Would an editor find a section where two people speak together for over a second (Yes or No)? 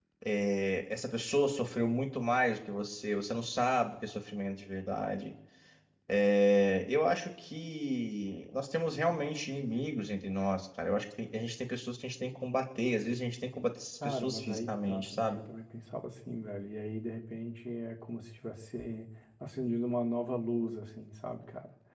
Yes